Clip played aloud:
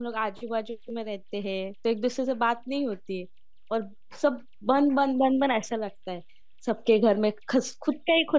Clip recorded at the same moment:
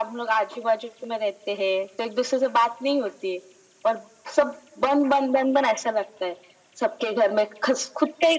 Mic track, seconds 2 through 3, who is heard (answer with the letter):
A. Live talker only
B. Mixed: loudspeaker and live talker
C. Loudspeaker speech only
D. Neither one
C